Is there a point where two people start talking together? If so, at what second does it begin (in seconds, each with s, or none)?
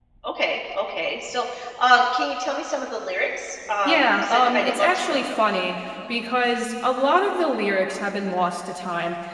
3.9 s